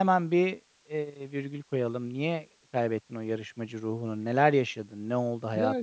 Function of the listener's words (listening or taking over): taking over